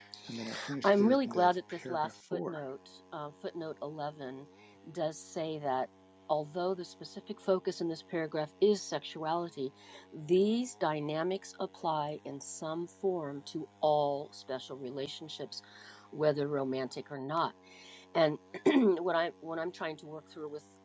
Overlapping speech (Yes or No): Yes